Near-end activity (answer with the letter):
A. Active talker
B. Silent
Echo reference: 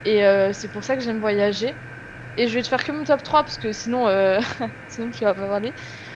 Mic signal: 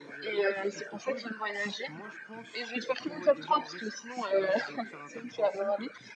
A